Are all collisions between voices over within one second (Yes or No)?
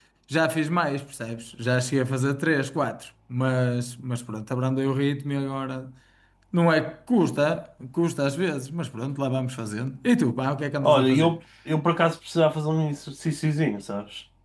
Yes